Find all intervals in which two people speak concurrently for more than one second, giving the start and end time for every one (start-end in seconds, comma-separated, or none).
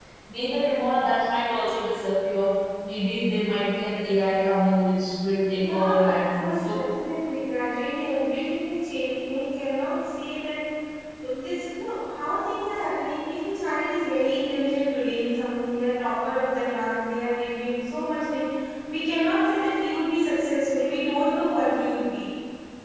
5.6-6.8